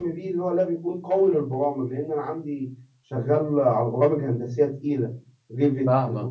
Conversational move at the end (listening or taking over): taking over